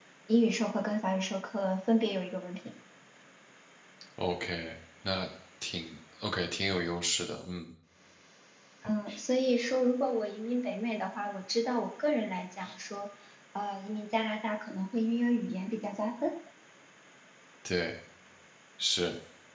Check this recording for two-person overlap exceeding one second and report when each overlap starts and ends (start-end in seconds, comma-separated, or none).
none